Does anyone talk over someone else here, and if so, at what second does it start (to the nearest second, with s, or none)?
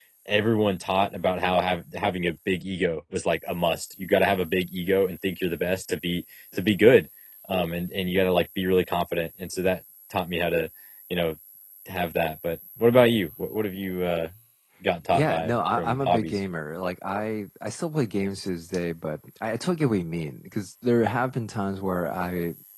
15 s